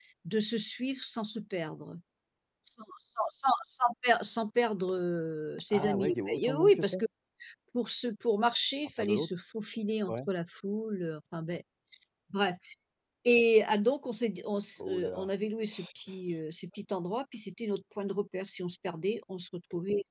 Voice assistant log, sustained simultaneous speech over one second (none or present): present